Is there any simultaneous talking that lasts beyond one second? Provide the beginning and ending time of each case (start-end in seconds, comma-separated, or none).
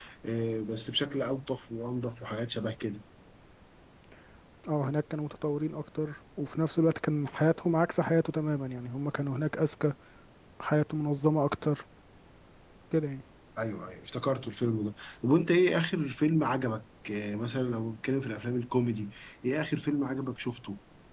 none